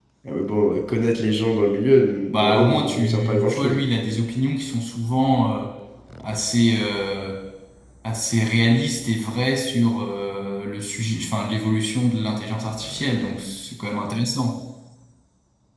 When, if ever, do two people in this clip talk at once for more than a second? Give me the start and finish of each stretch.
2.3-3.8

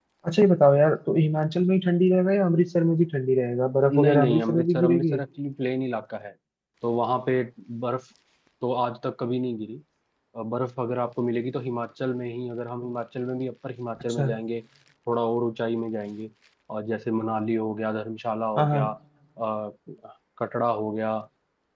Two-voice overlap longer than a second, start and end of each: 3.8-5.2

